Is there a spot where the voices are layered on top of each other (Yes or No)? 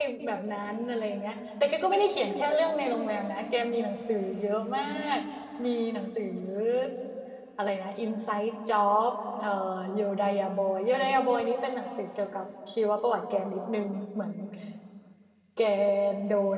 No